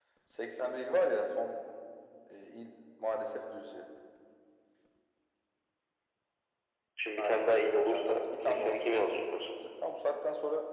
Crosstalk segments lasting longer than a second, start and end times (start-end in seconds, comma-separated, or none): 7.2-9.5